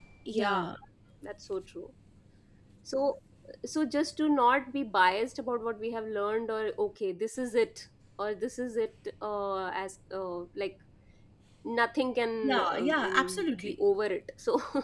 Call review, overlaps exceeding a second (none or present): present